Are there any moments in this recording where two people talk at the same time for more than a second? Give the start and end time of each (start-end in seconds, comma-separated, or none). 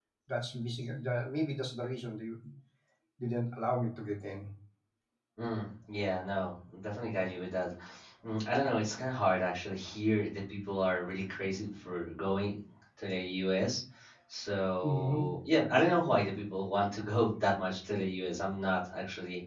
none